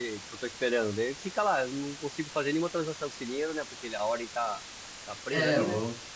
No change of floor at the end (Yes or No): No